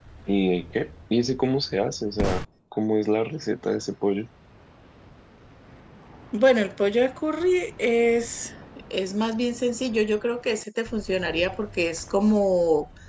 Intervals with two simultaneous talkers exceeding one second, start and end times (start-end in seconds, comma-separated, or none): none